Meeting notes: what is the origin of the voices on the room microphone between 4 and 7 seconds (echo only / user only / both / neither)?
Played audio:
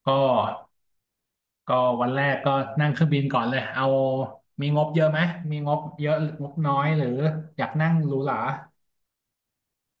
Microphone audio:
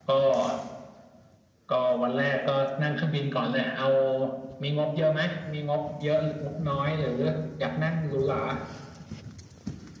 echo only